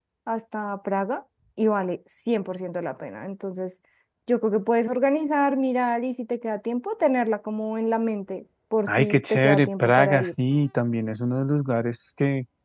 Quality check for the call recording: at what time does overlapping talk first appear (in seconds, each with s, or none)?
8.9 s